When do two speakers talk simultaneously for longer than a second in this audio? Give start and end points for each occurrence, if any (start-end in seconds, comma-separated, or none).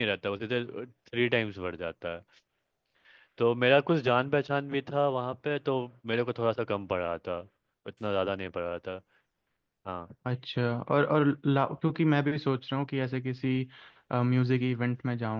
none